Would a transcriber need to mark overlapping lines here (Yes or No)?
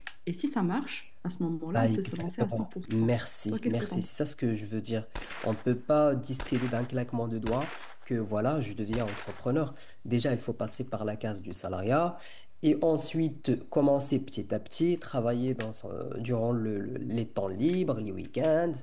Yes